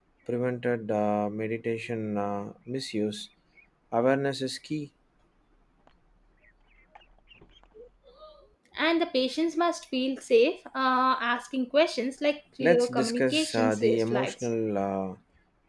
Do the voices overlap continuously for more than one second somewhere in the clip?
Yes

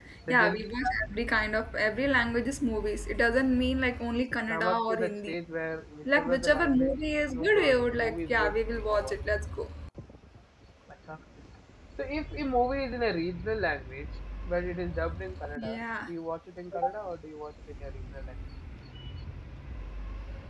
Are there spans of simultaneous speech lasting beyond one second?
Yes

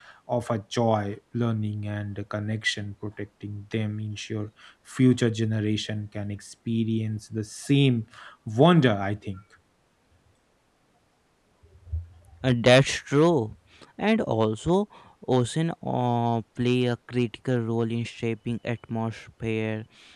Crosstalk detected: No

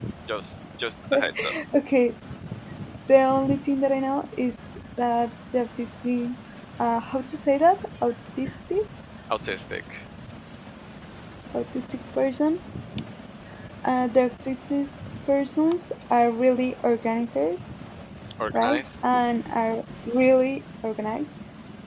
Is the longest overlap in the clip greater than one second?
No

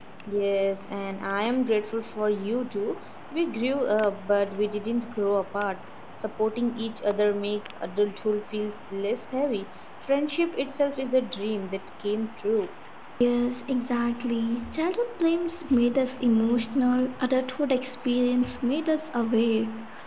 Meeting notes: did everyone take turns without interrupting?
Yes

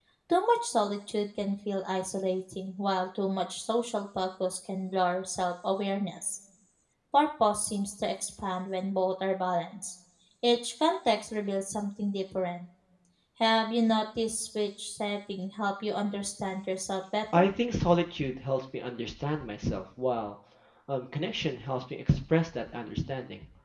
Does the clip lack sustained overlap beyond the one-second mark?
Yes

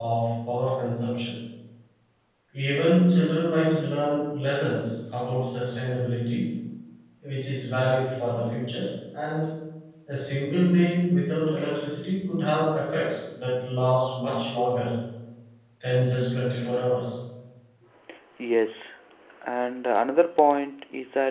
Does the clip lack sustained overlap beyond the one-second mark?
Yes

